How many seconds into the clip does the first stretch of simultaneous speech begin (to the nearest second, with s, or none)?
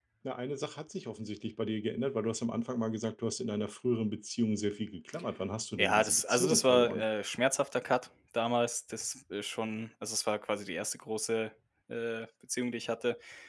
6 s